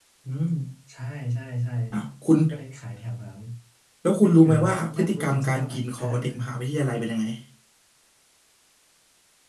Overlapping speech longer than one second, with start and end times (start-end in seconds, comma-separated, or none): 4.2-6.5